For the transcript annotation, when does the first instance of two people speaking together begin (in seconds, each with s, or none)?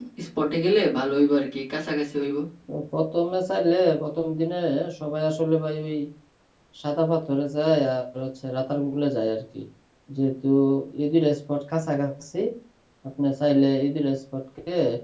none